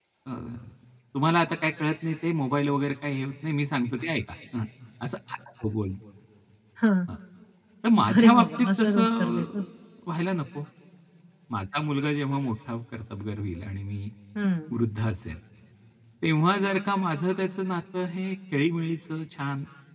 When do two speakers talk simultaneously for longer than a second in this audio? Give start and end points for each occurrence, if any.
8.1-9.4

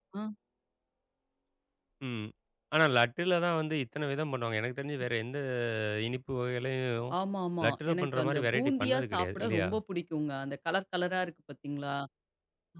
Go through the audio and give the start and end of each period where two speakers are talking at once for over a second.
7.7-9.7

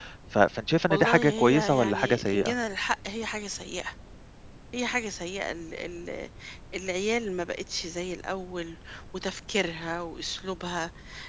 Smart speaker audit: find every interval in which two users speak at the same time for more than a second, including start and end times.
0.9-2.5

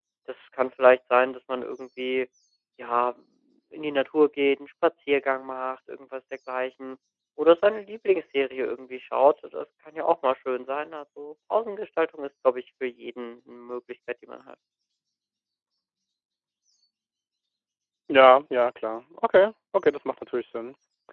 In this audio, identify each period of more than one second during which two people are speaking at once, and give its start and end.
none

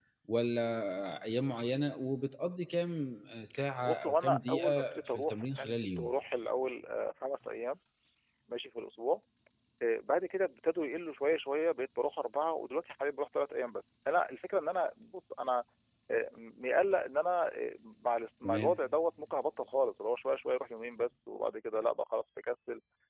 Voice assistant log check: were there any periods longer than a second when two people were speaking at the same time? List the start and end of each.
3.9-6.1

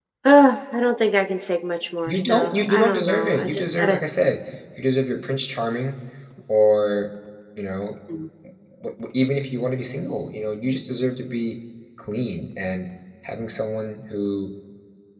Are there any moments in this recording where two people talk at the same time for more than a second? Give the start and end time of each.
2.1-4.0

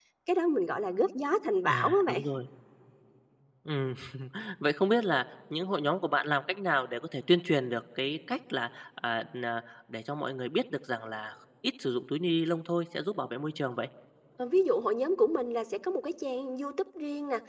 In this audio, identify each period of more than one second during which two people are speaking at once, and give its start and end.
none

